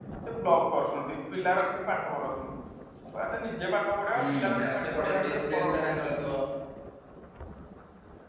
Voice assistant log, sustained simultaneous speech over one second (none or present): present